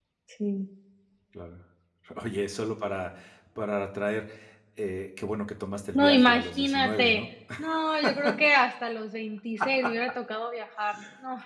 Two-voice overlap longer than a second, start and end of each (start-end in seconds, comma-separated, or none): 5.9-7.2